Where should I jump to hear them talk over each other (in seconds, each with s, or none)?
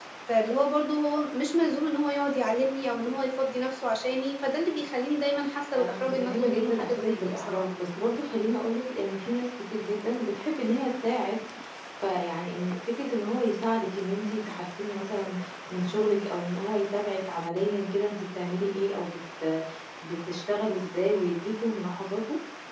5.8 s